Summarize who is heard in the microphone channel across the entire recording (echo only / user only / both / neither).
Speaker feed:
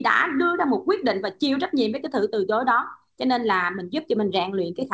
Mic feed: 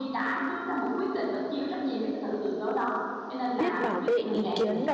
both